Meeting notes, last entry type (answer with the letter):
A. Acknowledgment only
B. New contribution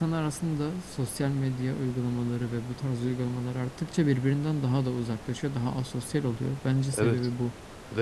B